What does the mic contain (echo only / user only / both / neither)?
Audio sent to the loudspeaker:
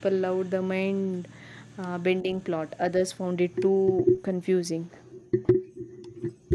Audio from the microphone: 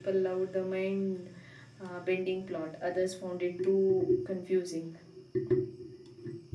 echo only